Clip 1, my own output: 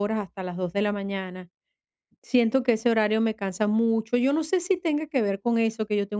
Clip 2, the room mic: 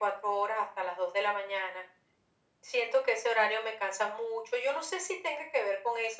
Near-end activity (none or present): none